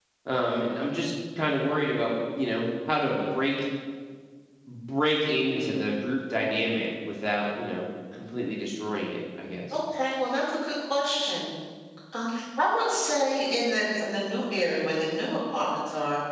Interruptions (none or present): none